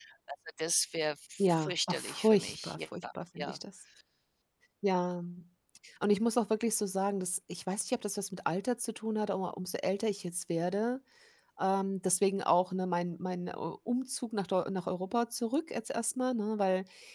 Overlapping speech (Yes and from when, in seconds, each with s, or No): Yes, from 1.4 s